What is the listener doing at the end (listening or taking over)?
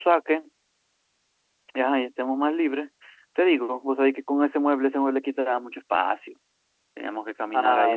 listening